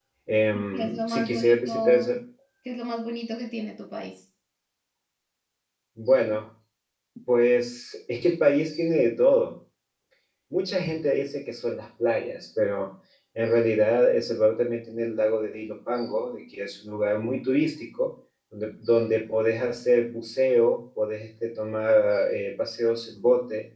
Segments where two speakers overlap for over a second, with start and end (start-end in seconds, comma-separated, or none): 0.7-2.1